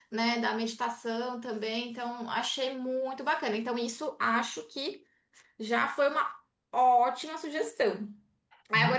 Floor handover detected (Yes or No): No